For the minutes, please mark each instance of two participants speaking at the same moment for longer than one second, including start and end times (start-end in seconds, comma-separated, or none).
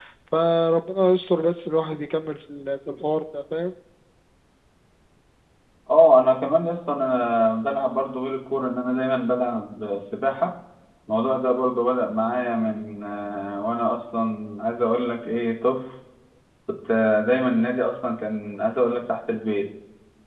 none